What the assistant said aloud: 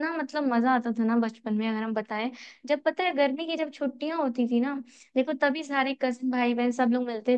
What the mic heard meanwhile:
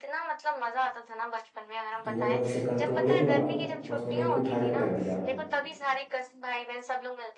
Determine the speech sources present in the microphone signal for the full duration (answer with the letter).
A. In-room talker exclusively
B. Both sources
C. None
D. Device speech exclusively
B